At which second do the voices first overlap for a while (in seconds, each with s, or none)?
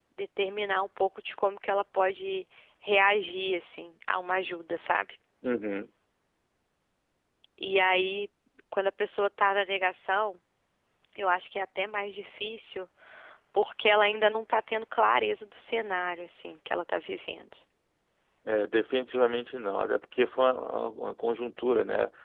none